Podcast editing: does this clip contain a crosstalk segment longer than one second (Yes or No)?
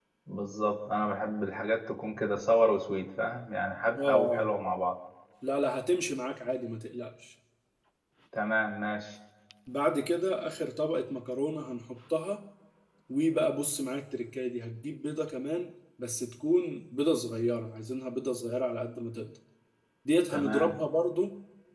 No